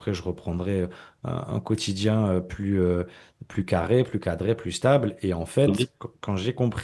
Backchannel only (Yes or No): Yes